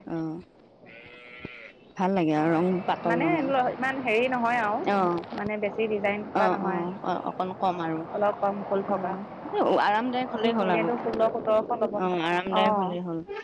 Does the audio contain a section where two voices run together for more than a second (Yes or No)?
No